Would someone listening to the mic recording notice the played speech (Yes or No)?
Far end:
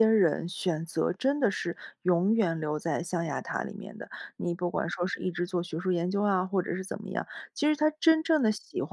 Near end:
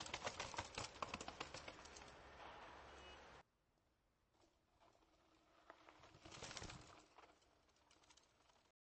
No